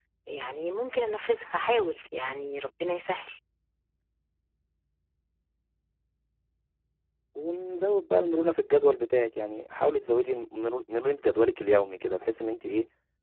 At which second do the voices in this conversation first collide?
none

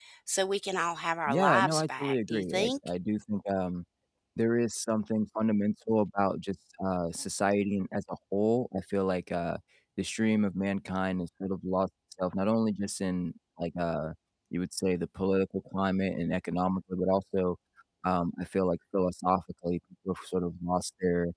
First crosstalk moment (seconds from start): 1 s

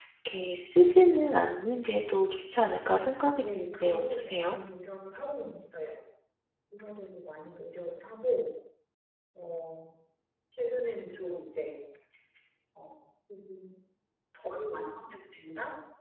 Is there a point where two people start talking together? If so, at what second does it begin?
3 s

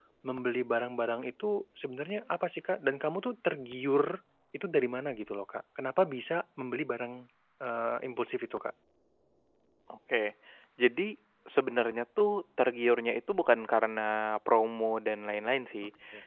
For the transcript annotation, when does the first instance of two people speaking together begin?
none

